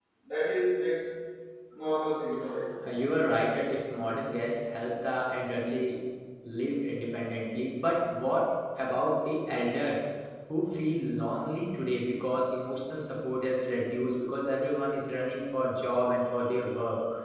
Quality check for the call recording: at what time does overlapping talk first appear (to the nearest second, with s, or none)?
none